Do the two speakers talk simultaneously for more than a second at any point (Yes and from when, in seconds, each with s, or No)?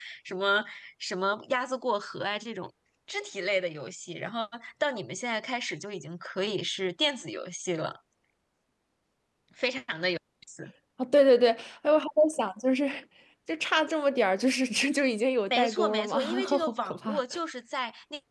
Yes, from 15.5 s